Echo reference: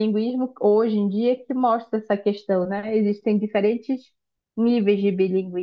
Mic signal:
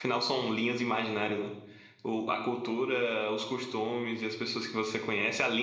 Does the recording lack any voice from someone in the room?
No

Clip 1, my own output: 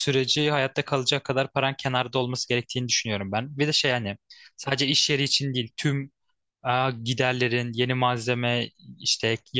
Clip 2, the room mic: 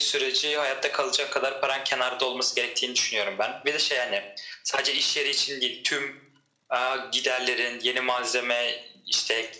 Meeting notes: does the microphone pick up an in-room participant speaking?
No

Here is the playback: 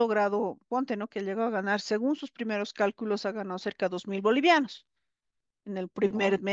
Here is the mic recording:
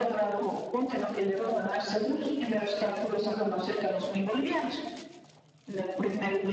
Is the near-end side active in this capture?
No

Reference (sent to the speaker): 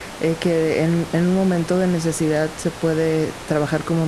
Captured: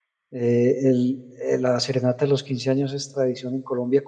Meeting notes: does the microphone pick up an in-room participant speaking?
Yes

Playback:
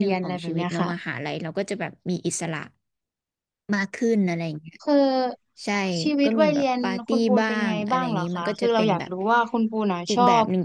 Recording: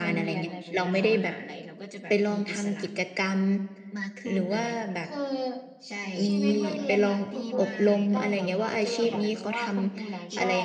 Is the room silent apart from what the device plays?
No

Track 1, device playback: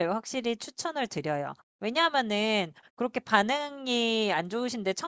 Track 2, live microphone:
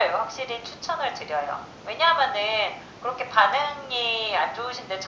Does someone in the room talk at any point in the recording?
No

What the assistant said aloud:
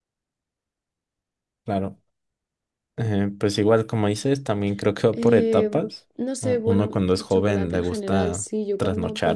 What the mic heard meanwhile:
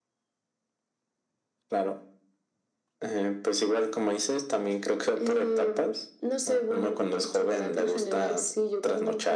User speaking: No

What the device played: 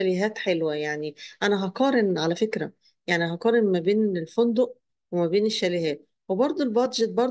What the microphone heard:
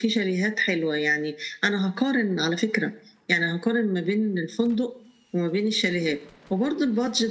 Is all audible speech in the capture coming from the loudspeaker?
Yes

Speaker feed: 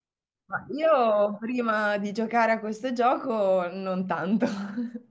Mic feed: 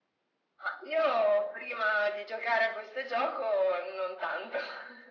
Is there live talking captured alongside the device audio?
No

